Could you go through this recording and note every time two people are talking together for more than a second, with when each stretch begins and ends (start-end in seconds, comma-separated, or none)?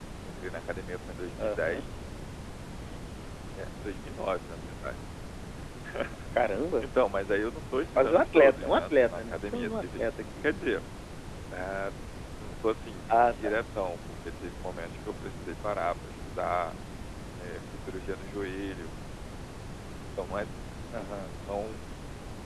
8.0-10.0